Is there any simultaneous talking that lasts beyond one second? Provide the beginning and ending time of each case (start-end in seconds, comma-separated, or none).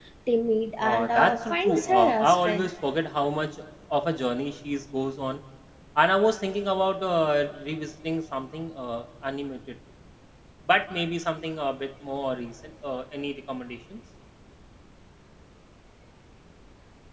0.8-2.7